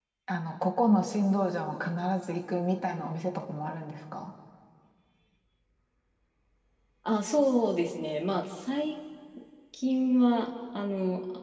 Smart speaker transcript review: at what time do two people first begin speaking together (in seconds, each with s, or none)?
none